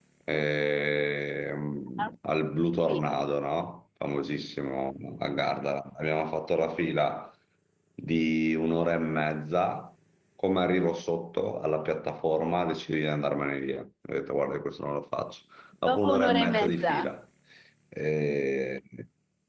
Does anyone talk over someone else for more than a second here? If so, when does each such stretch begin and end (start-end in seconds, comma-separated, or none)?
15.9-17.1